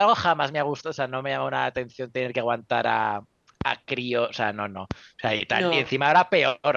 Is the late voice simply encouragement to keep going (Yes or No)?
Yes